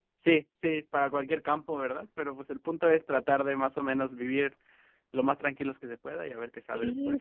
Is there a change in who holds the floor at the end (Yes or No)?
Yes